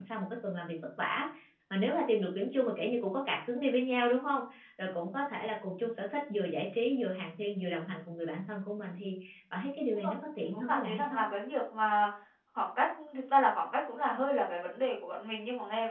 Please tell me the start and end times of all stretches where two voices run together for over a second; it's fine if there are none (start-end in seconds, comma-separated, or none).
9.9-11.3